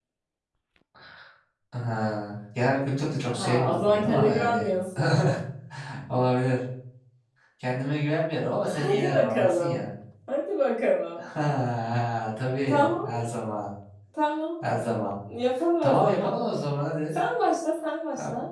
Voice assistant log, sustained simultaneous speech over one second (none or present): present